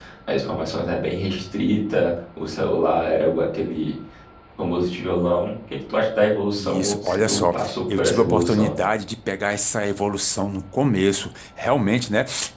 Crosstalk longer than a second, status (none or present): present